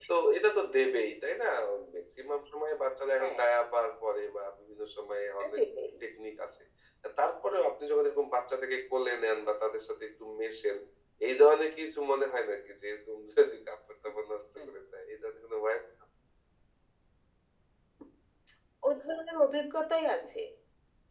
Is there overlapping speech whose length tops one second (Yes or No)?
No